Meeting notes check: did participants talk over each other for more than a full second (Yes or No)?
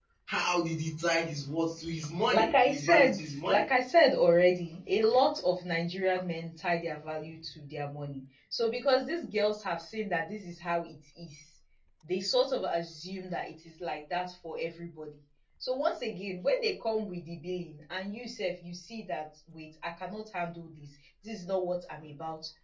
Yes